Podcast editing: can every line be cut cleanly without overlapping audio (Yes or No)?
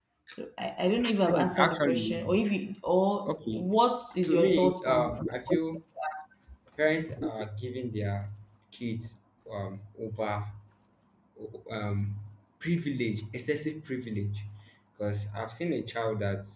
No